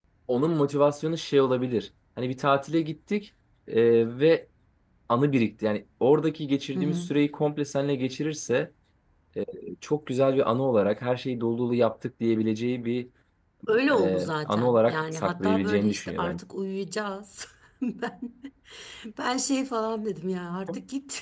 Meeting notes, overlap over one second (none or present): present